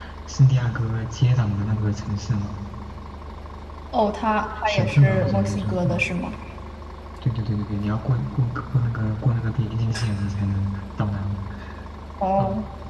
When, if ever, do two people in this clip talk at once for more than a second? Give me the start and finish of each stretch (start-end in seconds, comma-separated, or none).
4.7-6.0